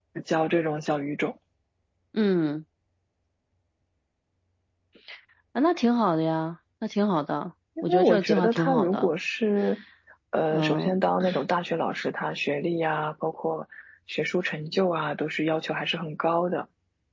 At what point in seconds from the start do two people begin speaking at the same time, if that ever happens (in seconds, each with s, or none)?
7.8 s